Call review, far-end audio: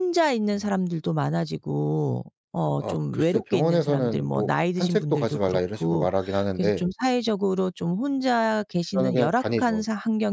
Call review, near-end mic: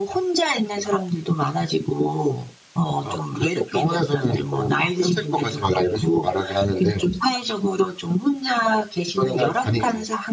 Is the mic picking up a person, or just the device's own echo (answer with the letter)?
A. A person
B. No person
B